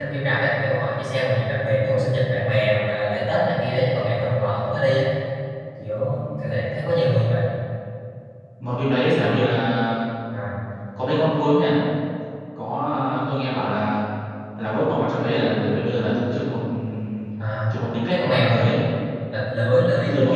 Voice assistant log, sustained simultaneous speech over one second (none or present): none